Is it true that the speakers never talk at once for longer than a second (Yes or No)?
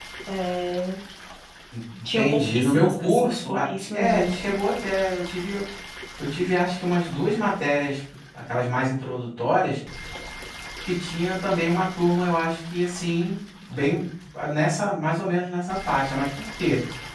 No